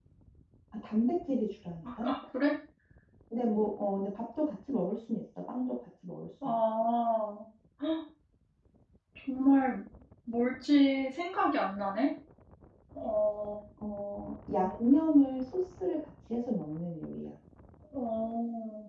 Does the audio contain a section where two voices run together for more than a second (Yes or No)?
No